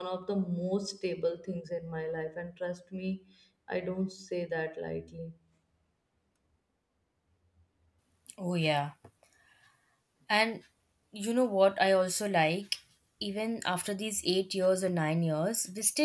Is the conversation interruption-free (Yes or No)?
Yes